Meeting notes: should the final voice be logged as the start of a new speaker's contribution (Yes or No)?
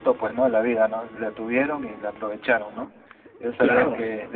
No